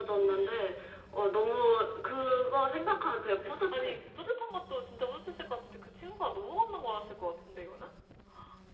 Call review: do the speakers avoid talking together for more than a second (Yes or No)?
Yes